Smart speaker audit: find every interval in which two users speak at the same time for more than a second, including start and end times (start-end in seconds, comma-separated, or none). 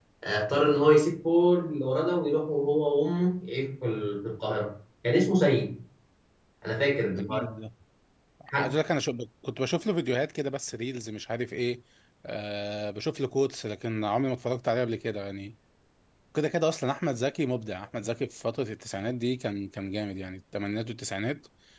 none